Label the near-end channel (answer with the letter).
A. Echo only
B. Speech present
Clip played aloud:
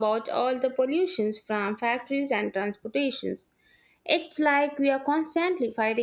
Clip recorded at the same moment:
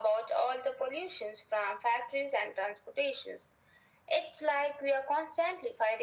A